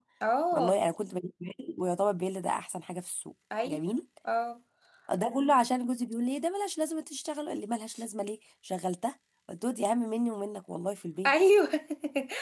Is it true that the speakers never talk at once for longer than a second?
Yes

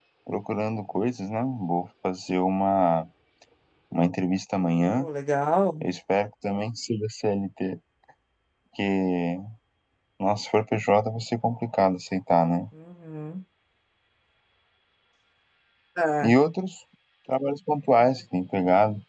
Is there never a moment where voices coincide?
Yes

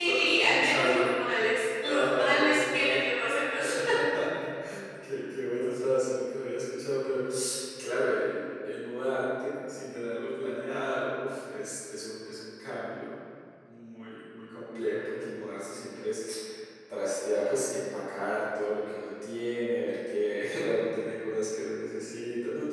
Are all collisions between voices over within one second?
No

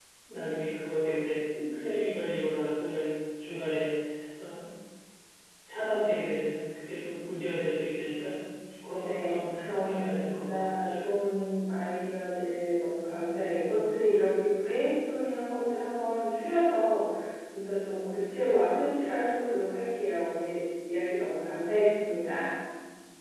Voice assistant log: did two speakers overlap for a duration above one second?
Yes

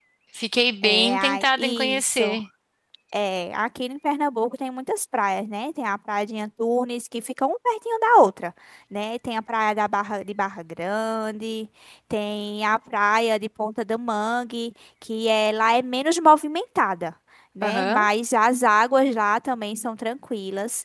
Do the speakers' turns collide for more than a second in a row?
Yes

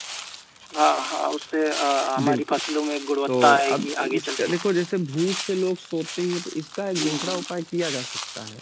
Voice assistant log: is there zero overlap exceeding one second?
No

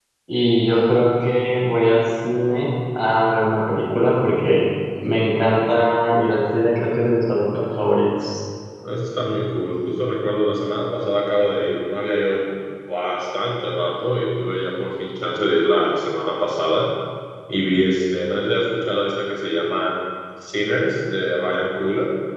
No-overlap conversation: Yes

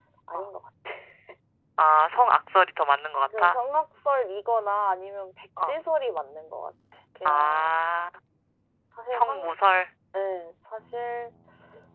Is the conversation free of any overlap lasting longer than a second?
Yes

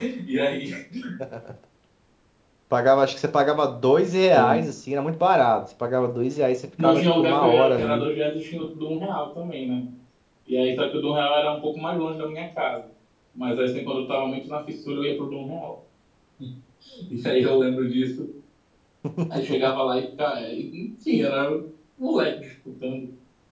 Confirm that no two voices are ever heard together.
No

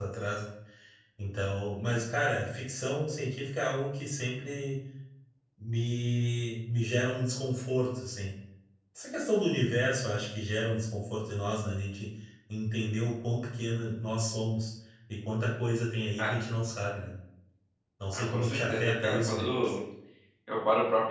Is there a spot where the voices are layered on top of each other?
Yes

